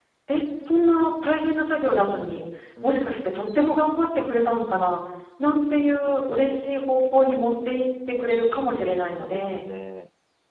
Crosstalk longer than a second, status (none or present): present